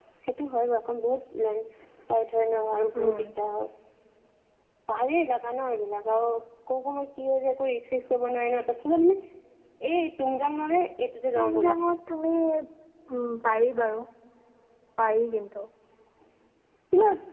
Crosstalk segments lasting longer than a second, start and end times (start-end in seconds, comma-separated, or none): none